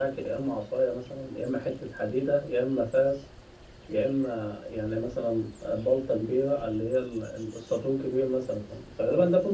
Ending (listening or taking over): listening